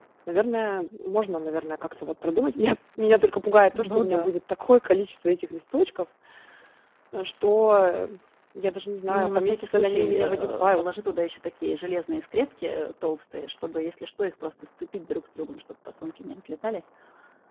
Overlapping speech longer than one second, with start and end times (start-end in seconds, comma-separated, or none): 9.1-10.9